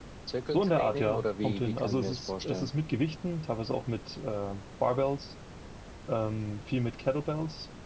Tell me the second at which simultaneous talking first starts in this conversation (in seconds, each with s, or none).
0.5 s